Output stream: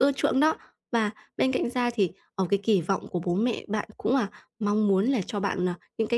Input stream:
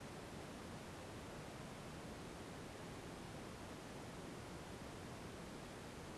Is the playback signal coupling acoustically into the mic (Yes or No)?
No